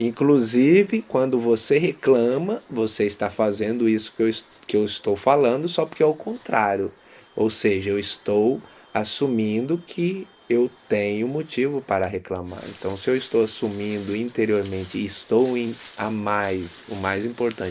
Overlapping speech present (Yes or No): No